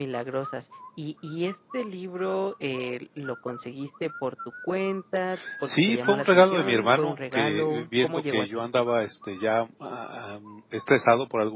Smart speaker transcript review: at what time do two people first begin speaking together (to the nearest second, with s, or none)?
6 s